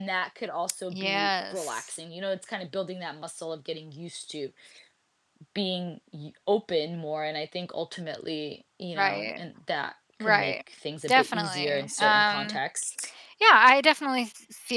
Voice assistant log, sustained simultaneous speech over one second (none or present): present